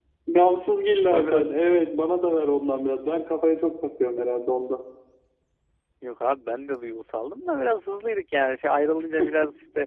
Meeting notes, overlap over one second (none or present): none